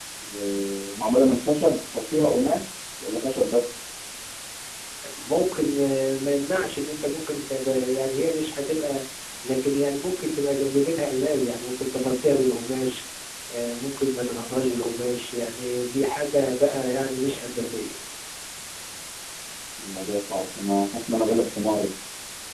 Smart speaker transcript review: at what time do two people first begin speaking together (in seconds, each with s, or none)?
none